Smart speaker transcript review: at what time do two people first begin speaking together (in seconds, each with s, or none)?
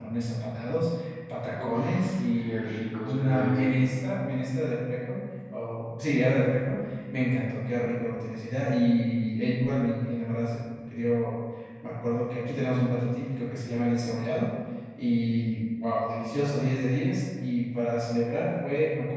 1.6 s